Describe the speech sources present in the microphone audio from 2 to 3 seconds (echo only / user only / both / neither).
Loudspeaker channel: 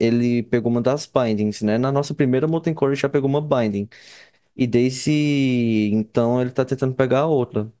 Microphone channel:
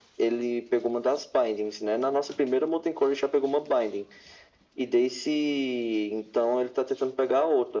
echo only